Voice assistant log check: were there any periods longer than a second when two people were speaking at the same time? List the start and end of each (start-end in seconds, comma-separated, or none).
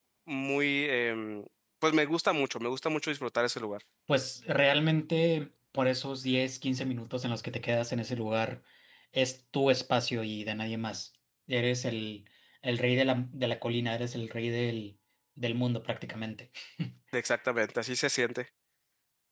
none